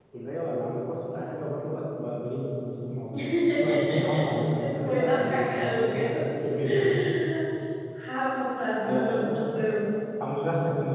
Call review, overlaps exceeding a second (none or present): present